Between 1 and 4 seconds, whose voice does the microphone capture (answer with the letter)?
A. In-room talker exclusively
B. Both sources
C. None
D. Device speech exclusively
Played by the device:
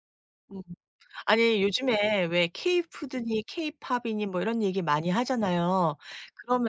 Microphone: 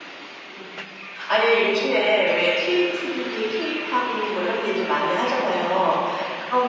D